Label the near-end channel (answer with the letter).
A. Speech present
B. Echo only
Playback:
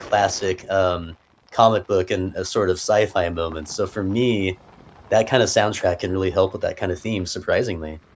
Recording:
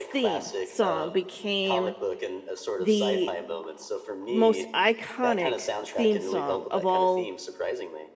A